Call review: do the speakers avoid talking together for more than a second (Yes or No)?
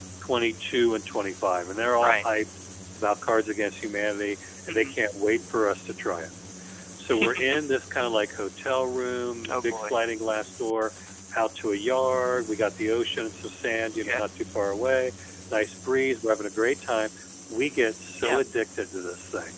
Yes